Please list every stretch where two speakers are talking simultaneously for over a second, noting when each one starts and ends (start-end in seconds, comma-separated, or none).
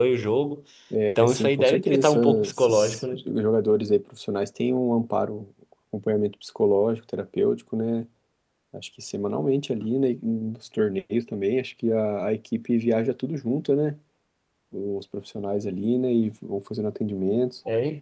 1.2-3.2